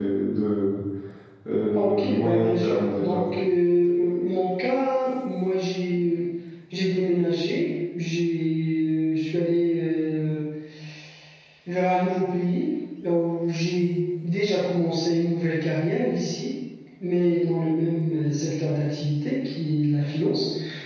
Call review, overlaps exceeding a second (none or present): present